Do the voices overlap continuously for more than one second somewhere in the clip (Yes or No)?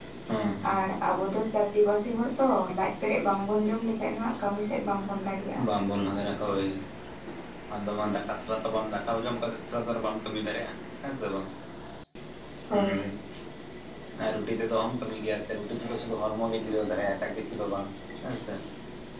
No